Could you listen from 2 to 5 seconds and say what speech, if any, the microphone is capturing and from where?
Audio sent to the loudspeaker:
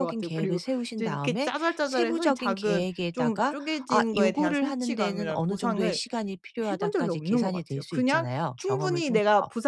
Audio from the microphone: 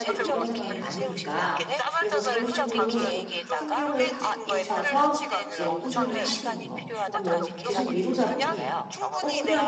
both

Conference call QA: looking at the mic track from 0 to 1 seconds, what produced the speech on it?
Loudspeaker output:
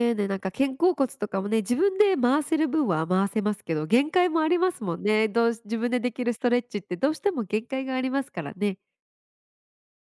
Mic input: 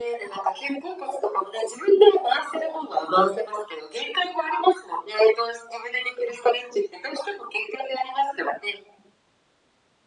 echo only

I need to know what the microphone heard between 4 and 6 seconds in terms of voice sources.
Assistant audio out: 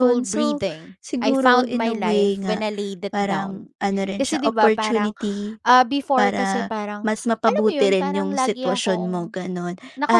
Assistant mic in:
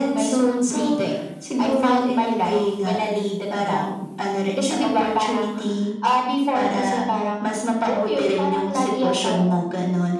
echo only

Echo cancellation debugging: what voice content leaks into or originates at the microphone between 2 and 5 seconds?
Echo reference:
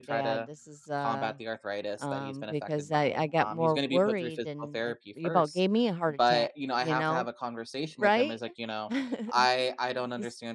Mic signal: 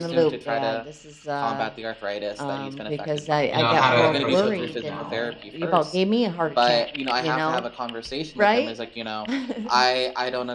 both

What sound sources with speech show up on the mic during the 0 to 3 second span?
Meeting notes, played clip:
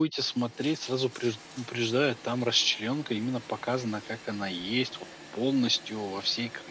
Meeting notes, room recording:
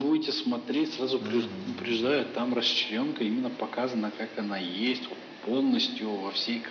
both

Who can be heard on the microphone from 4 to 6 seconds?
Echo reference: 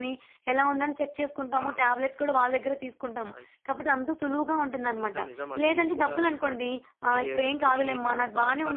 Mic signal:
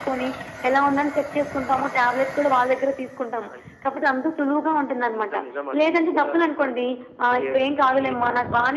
echo only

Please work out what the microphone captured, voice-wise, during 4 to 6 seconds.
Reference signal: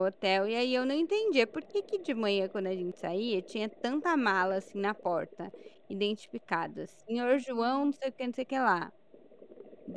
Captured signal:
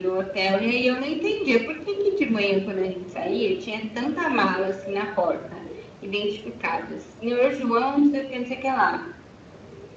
echo only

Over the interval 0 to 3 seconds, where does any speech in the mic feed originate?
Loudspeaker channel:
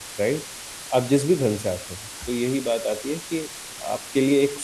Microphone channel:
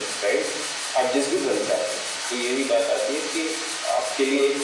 echo only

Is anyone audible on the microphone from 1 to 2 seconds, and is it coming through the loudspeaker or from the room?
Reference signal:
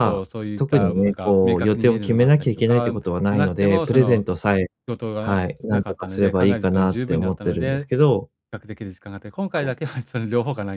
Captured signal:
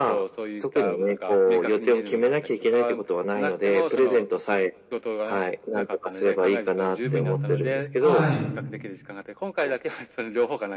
echo only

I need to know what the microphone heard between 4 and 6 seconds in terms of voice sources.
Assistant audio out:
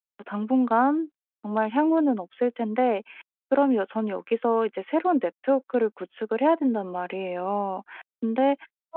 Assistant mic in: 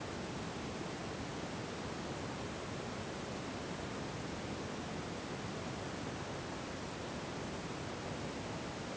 neither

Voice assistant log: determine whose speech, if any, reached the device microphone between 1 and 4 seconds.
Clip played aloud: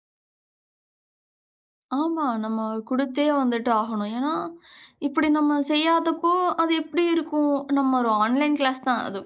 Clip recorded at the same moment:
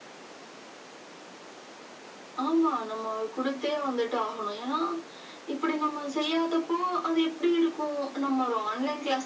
echo only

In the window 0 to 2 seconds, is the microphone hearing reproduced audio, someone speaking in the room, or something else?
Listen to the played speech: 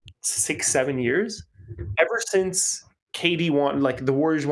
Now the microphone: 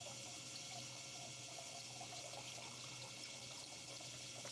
neither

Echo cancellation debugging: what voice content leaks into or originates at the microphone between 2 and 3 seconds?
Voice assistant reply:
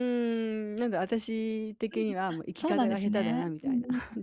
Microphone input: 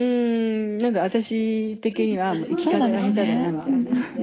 both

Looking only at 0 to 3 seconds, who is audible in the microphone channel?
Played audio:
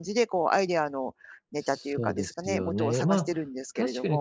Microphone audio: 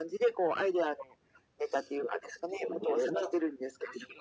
echo only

